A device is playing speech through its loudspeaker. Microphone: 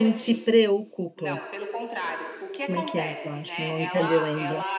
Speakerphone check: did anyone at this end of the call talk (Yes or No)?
Yes